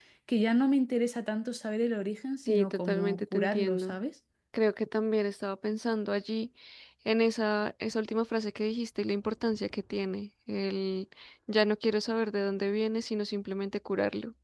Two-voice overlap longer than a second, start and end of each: 2.5-4.0

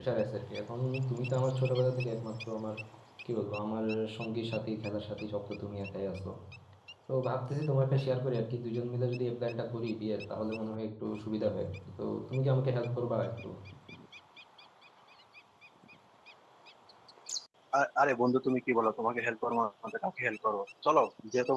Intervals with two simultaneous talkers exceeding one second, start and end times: none

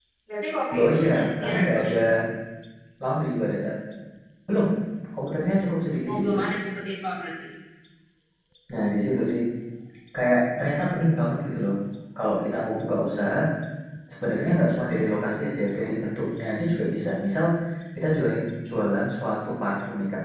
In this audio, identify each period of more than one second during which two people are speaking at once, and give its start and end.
0.7-2.0

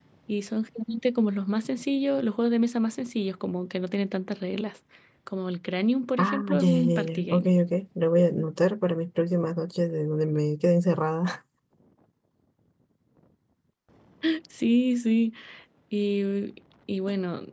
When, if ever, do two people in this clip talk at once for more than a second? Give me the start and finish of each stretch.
6.2-7.5

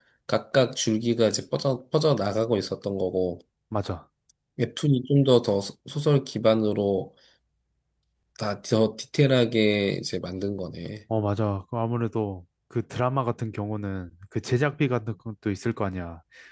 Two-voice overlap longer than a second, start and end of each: none

